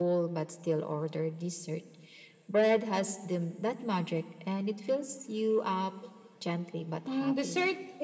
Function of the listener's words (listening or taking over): taking over